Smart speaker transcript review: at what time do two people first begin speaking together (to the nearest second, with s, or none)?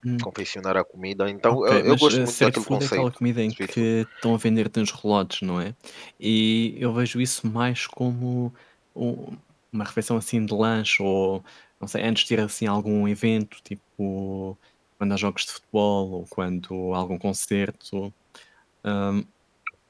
1 s